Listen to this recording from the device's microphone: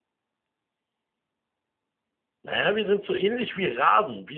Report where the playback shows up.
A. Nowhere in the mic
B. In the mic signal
A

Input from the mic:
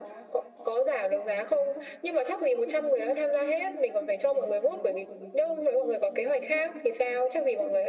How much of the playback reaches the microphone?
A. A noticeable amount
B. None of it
A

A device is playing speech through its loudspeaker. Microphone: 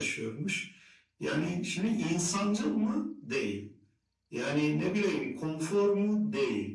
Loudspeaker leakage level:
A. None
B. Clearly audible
B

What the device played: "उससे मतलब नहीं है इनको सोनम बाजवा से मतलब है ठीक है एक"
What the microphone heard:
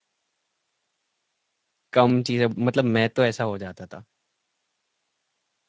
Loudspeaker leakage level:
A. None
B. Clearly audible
A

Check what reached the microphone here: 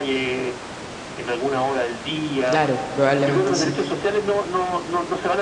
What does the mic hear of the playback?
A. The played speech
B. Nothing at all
A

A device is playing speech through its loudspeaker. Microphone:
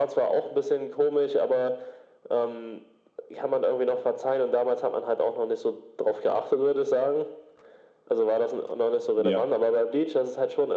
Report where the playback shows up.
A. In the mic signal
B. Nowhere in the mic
A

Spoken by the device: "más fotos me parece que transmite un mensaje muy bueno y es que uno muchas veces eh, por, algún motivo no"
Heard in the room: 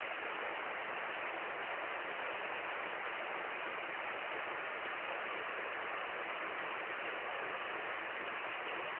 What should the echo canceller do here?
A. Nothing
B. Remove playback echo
A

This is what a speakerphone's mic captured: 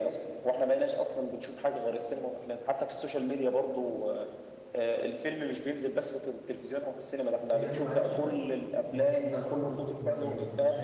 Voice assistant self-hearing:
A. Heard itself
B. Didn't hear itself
A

